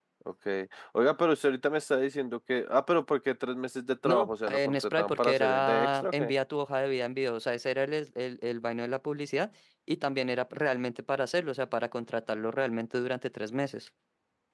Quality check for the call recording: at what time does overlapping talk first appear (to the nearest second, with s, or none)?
4 s